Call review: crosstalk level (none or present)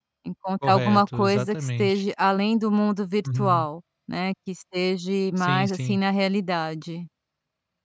present